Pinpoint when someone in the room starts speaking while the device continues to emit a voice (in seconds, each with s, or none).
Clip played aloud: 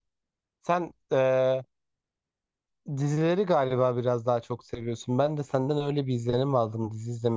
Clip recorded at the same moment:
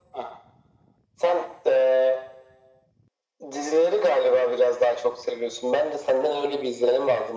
none